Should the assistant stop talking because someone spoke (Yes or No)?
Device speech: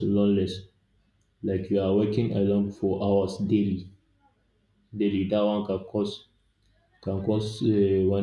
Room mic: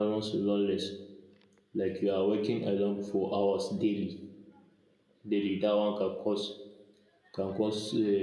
No